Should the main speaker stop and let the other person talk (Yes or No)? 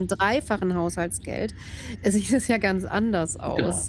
Yes